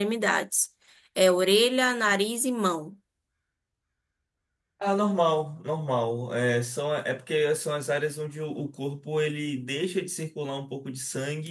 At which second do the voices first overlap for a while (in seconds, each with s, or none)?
none